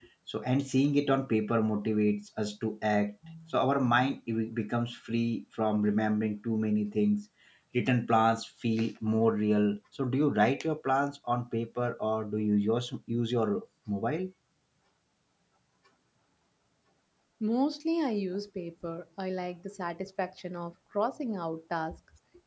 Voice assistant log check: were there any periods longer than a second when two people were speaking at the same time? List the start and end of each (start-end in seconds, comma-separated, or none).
none